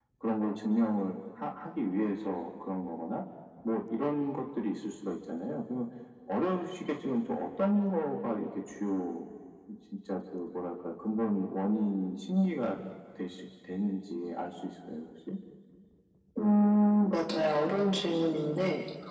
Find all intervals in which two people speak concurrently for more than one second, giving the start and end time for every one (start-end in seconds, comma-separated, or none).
none